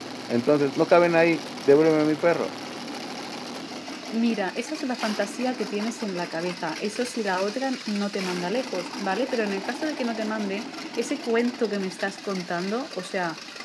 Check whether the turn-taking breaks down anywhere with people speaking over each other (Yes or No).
No